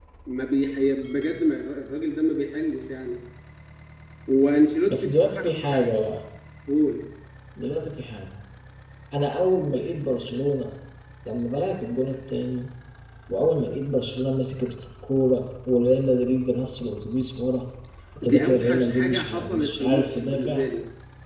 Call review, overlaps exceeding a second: present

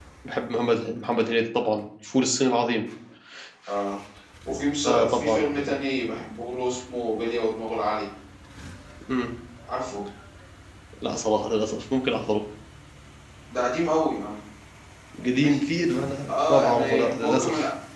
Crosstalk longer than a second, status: present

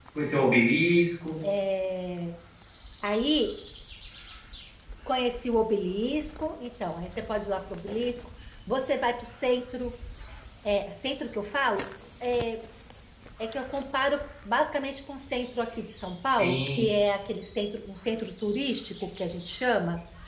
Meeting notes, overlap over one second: none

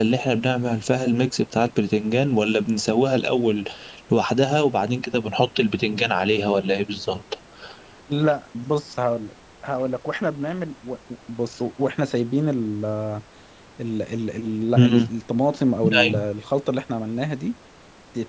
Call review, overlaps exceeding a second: none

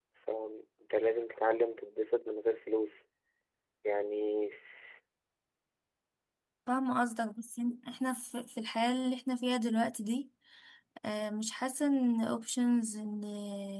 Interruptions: none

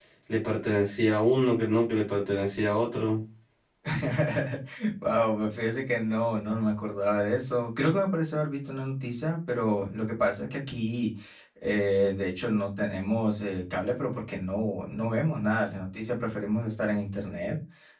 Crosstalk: none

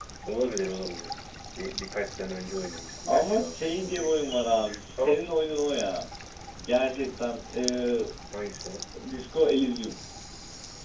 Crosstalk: present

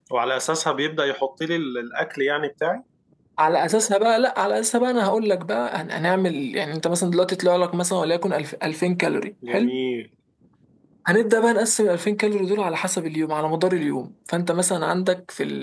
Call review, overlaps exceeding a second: none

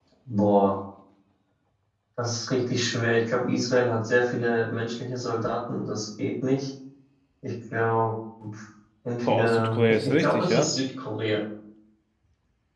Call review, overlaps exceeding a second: present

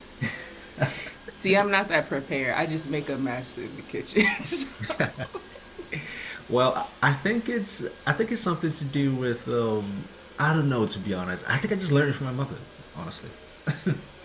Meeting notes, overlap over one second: none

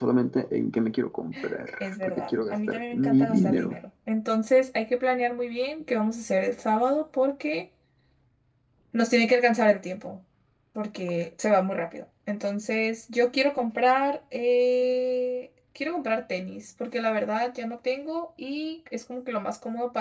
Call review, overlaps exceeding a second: present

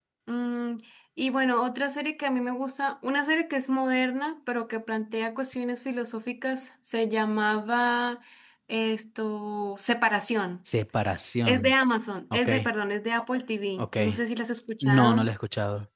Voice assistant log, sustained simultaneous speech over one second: none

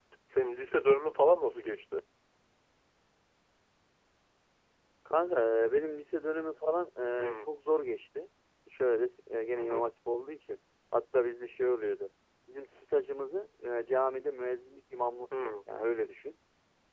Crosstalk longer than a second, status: none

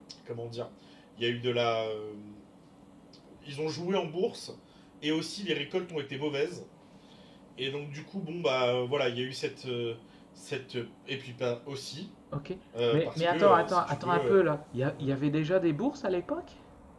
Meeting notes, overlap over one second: present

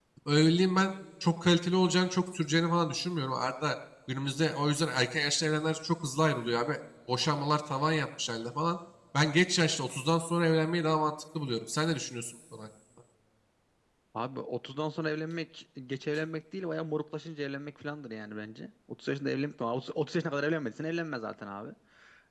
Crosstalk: none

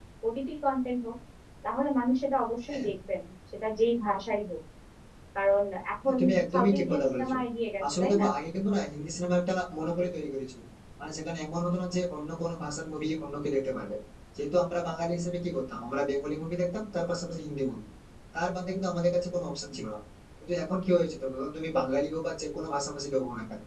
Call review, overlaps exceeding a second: present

